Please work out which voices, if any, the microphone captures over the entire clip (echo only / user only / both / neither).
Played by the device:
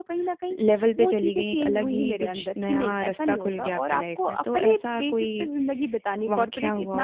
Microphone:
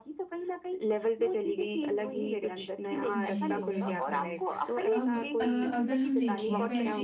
both